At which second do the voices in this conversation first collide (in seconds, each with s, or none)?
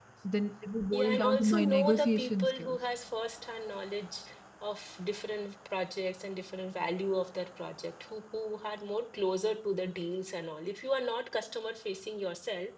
0.9 s